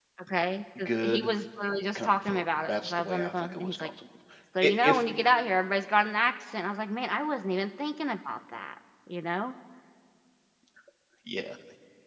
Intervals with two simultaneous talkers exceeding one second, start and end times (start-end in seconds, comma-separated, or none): 1.9-3.9